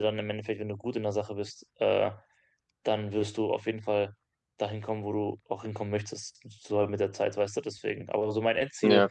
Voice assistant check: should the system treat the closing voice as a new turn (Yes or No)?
No